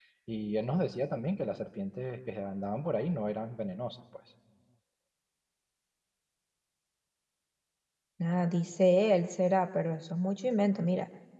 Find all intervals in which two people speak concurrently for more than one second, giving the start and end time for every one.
none

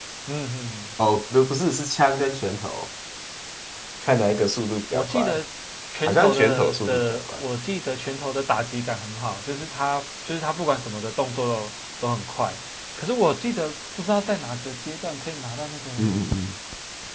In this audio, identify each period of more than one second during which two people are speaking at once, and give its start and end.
6.0-7.4

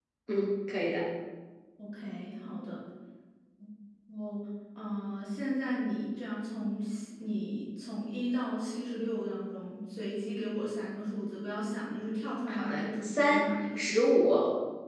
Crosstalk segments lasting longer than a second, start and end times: 12.5-14.0

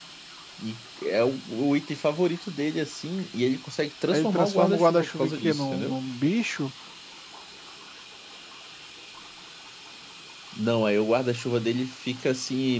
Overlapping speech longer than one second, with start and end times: 4.1-6.0

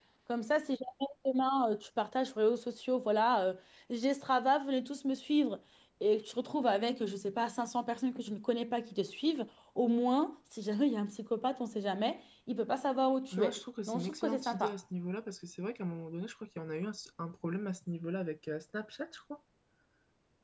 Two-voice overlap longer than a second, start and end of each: 13.3-14.7

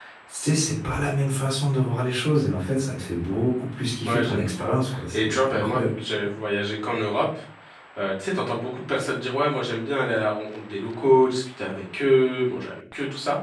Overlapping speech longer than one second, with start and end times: 4.1-5.9

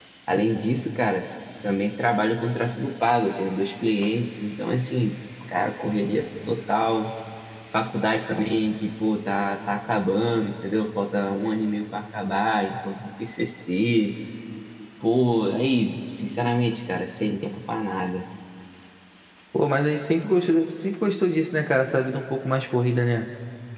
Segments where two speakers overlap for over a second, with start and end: none

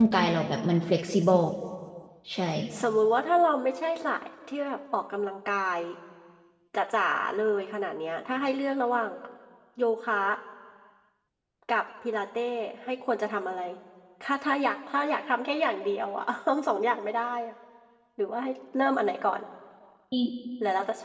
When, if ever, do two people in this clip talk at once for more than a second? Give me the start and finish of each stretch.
none

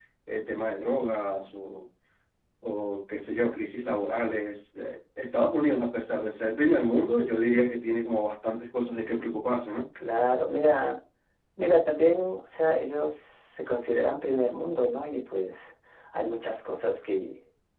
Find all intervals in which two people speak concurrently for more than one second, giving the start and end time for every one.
none

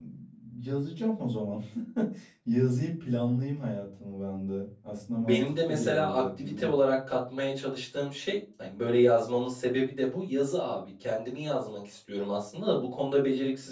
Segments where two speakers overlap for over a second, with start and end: 5.3-6.7

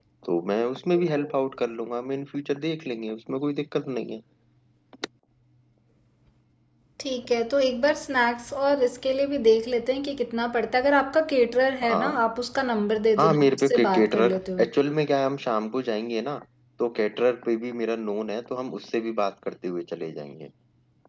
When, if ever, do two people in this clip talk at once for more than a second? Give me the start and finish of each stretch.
13.2-14.7

